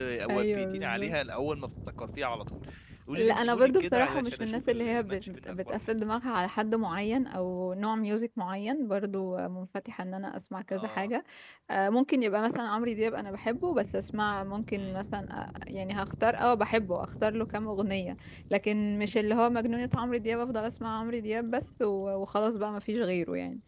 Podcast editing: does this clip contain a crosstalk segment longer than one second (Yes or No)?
Yes